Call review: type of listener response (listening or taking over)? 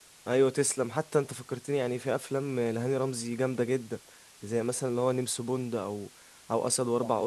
listening